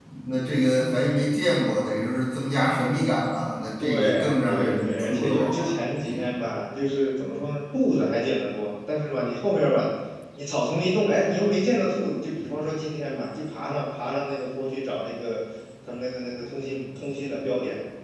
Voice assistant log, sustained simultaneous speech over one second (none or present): present